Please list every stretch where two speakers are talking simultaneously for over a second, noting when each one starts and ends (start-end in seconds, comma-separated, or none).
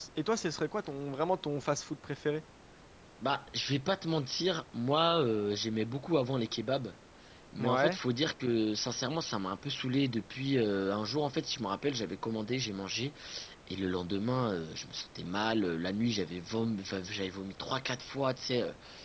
none